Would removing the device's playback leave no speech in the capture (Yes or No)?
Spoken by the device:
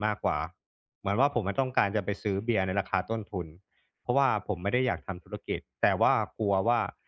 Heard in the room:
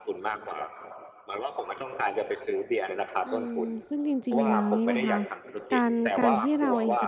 No